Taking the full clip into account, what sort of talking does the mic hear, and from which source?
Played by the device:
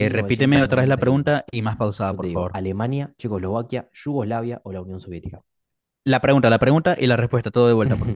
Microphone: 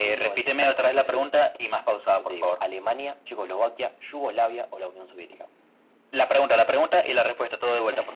echo only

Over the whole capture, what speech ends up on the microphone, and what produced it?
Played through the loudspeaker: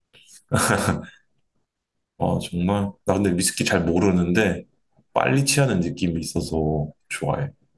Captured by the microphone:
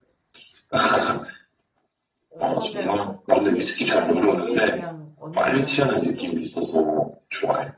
both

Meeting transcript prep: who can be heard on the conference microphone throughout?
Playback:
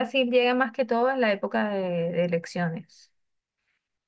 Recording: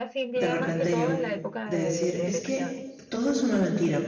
both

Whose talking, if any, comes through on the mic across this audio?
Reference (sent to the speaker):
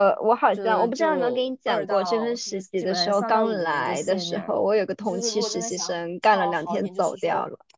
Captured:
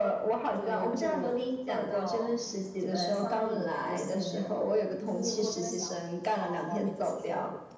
echo only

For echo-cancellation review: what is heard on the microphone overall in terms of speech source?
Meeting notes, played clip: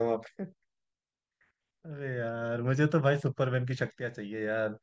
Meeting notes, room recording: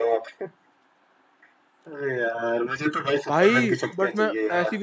both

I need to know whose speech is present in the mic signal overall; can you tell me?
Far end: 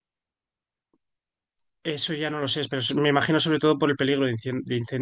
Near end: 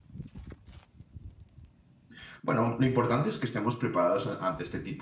user only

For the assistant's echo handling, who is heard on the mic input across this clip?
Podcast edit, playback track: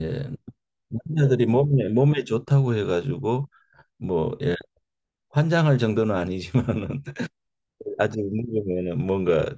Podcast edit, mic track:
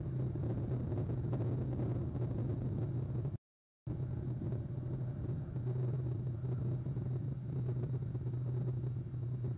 neither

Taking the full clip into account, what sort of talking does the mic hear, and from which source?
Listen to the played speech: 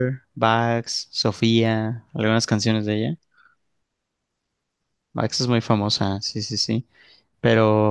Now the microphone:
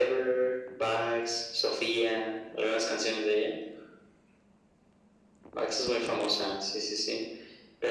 echo only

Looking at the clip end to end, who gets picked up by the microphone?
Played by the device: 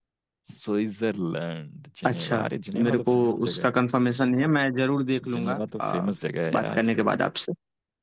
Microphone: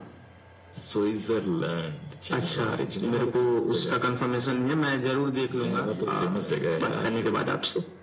both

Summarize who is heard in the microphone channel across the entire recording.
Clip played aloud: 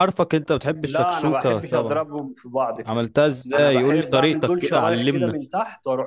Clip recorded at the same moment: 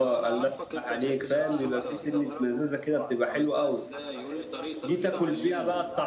both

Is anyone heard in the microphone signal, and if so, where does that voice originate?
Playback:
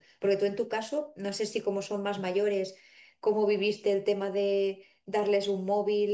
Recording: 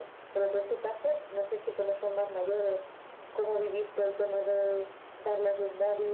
echo only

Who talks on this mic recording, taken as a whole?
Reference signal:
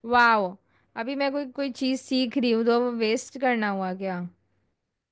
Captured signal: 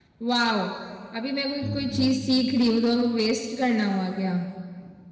both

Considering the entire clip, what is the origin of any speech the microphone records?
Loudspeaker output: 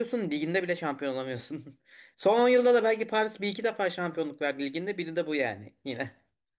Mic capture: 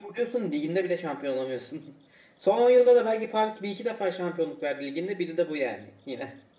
echo only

